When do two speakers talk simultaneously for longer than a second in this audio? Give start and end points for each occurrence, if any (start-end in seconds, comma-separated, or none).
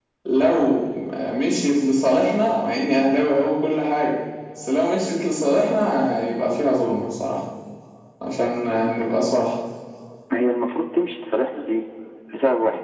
none